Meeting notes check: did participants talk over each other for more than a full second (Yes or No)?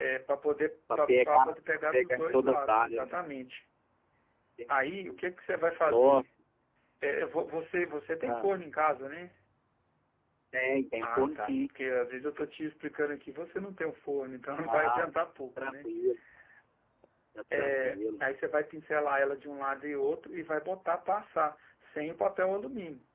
Yes